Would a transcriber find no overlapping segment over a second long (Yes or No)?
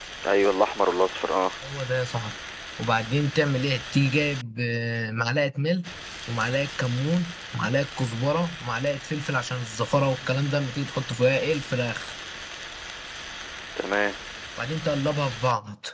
Yes